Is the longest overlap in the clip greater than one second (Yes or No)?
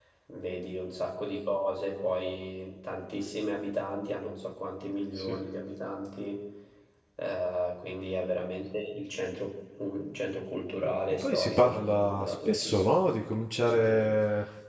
Yes